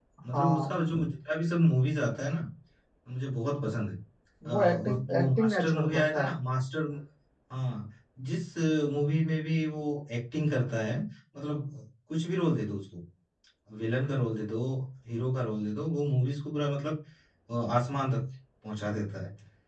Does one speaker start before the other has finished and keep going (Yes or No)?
Yes